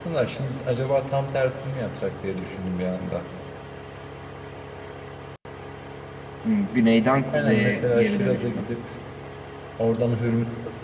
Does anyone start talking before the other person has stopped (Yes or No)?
Yes